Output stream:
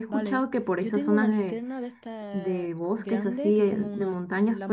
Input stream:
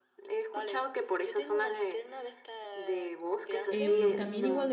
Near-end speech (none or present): present